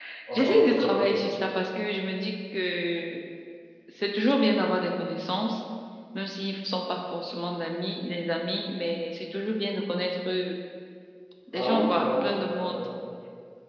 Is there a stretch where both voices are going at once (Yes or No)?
Yes